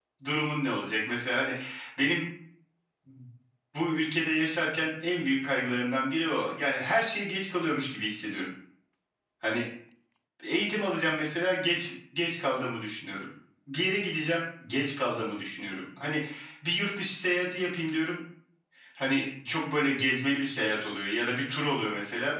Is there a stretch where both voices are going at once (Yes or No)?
No